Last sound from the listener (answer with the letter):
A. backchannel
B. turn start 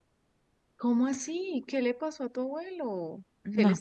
A